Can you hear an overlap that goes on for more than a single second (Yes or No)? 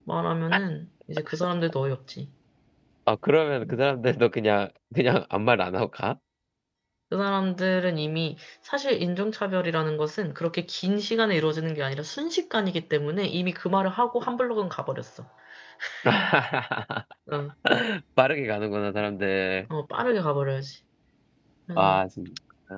No